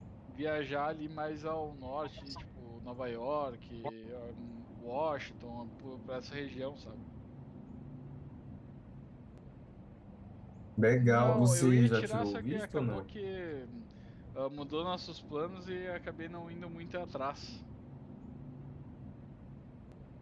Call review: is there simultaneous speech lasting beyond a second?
Yes, from 11.0 s

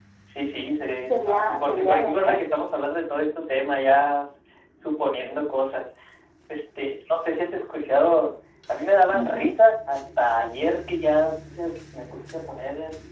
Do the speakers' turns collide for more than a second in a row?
Yes, from 1.1 s

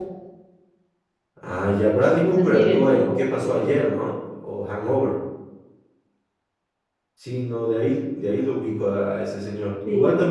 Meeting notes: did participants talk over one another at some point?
Yes, from 2.2 s

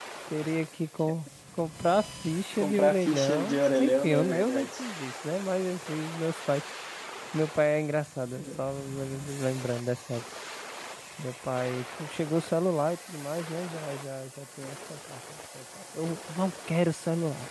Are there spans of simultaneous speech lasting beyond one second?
Yes, from 2.6 s

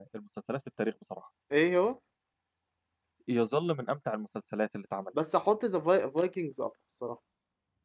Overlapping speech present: No

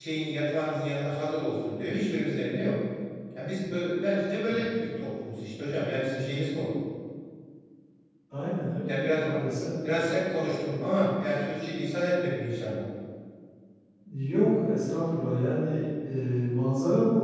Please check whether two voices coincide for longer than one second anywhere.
No

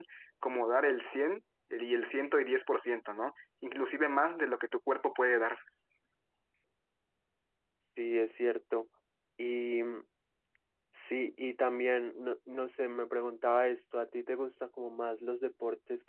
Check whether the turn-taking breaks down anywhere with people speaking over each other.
No

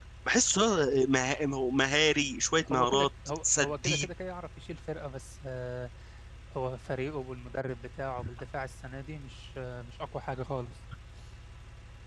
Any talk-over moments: Yes, from 2.6 s

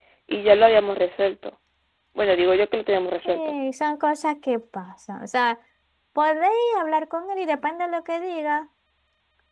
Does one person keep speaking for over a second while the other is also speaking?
No

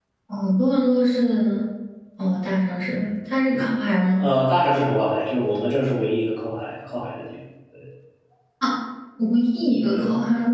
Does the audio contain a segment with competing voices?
No

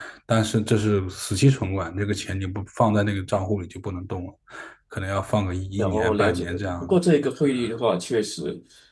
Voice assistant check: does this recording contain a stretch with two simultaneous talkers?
Yes, from 5.8 s

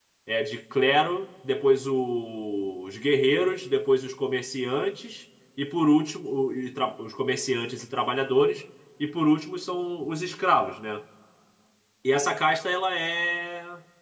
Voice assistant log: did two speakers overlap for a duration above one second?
No

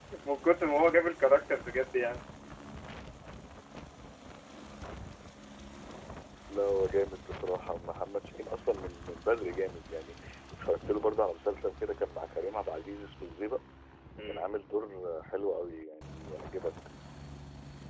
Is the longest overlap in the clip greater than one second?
No

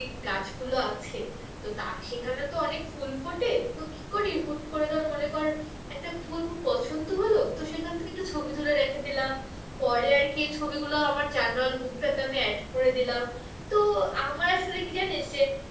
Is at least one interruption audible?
No

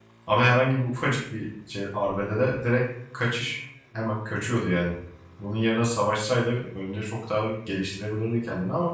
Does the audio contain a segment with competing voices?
No

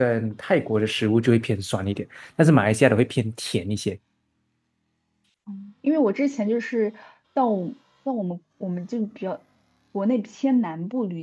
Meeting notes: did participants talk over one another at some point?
No

